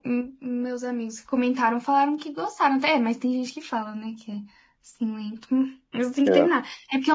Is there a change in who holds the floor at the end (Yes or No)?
No